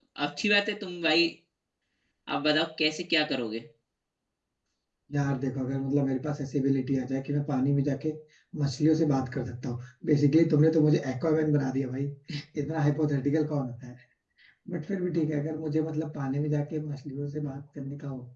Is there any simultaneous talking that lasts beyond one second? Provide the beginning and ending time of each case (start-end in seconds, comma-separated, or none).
none